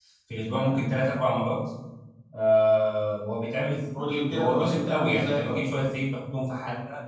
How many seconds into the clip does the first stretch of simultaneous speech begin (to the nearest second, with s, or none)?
4 s